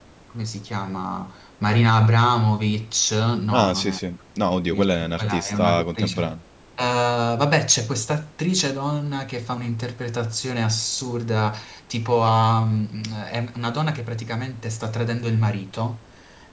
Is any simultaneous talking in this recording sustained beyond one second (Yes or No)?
Yes